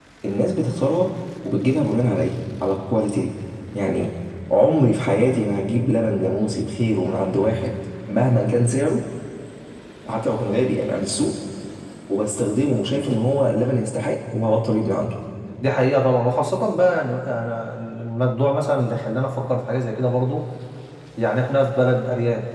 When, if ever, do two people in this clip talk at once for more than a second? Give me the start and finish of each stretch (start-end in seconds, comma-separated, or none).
none